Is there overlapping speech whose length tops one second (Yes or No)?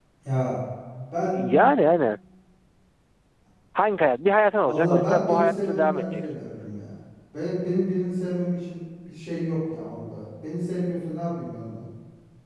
Yes